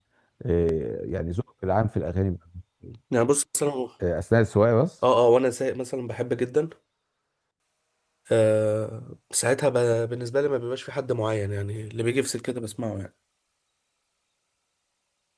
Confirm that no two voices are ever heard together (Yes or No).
Yes